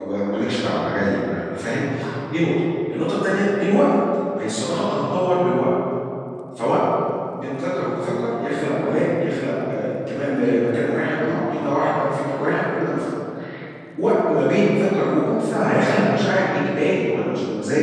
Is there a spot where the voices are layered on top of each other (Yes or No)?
No